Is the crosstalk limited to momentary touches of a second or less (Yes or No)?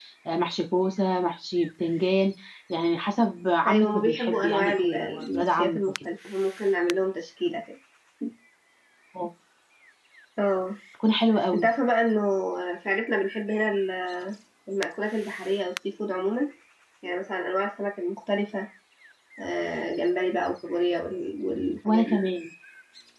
No